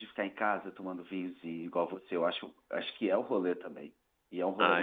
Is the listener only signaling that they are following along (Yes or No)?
No